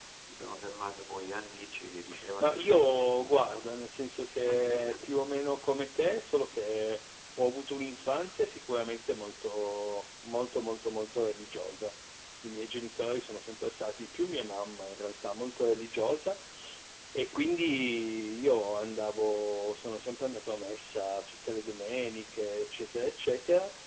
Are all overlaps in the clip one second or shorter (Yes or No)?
No